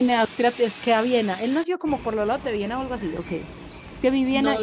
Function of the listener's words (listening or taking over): taking over